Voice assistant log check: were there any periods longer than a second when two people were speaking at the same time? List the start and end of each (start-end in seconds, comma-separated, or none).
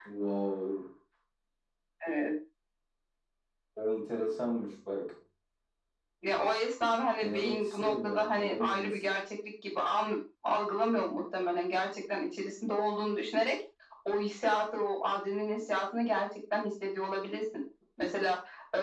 7.2-9.0